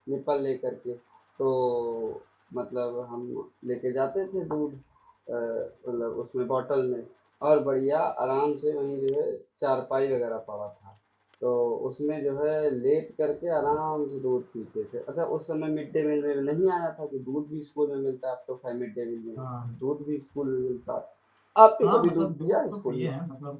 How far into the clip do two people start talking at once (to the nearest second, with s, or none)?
22 s